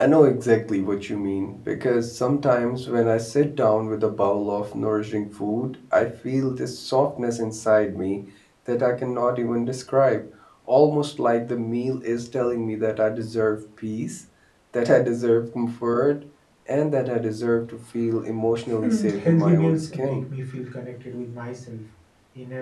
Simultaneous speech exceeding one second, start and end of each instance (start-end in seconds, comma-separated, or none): 18.8-20.2